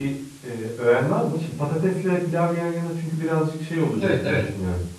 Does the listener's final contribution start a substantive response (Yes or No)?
Yes